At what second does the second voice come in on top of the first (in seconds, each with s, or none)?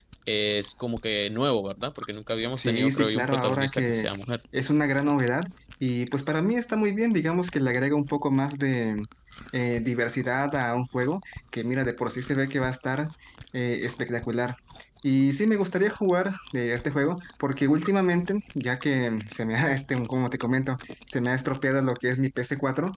2.6 s